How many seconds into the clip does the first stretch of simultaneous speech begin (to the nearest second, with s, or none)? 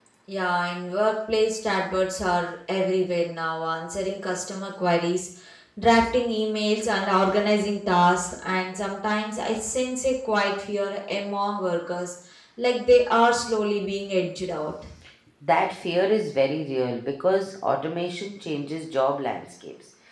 none